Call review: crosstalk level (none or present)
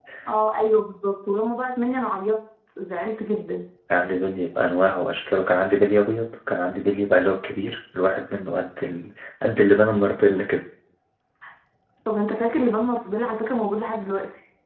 none